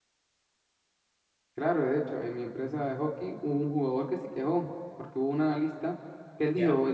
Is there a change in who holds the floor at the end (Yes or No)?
No